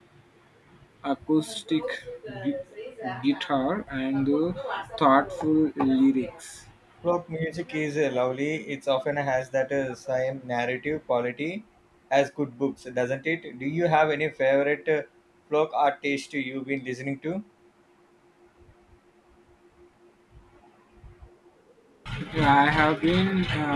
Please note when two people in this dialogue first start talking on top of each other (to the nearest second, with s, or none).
none